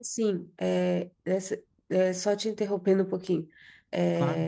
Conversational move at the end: listening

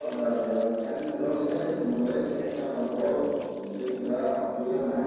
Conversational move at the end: taking over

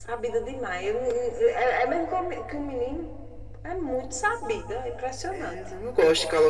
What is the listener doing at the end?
taking over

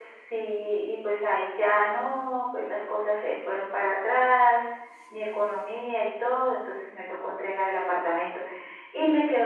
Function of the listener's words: listening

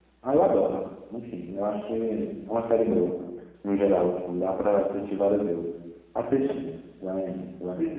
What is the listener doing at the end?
taking over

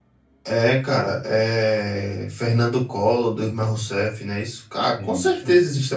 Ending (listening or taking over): listening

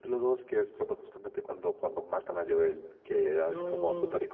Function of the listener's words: listening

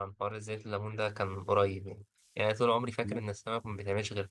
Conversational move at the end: listening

